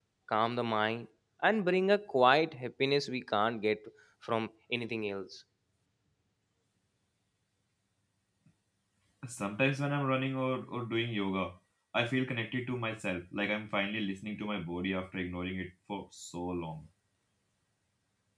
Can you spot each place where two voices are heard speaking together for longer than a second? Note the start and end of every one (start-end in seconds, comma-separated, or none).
none